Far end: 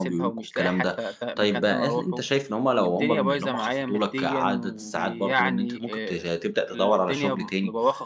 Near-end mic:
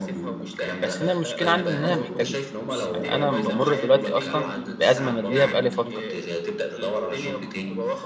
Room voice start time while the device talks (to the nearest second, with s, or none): 1 s